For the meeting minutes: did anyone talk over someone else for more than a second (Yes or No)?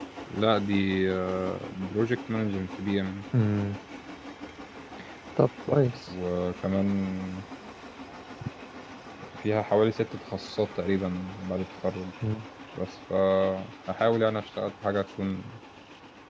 No